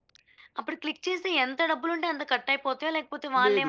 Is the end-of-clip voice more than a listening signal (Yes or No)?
Yes